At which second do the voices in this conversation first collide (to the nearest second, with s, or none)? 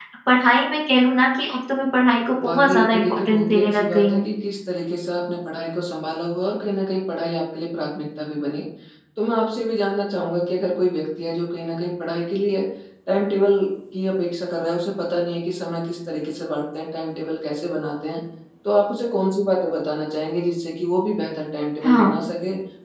2 s